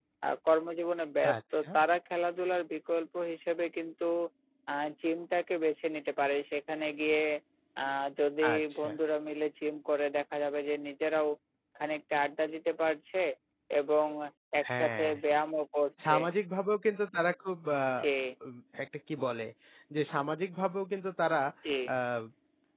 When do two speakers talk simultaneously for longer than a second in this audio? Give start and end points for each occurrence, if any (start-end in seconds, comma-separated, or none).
none